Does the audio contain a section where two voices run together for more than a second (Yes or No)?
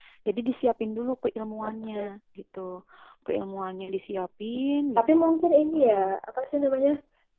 No